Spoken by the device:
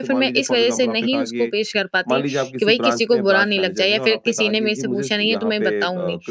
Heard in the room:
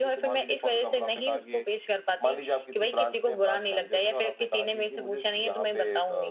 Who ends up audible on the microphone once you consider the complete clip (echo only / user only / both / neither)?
echo only